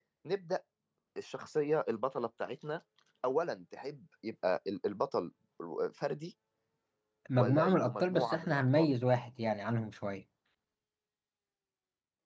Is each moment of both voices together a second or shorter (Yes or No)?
No